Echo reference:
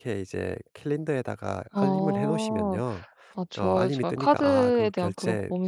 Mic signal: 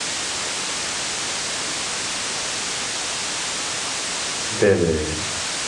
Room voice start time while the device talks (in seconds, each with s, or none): 4.5 s